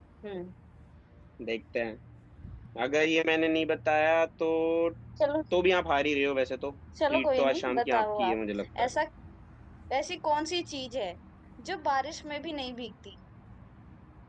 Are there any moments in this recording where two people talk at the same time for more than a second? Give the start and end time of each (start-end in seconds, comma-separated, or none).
7.1-8.4